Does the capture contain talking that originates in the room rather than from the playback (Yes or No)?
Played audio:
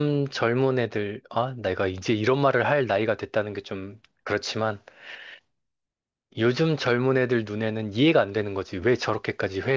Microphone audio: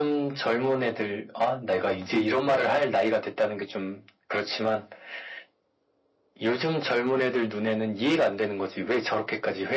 No